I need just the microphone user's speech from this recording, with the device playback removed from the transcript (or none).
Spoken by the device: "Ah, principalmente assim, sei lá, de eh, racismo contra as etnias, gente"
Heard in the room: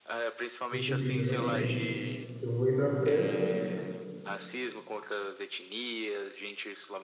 foi subindo exatamente. Que eu vou ir para França